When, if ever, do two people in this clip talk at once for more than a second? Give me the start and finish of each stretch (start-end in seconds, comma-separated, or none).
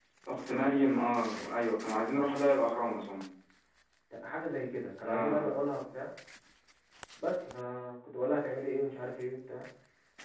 none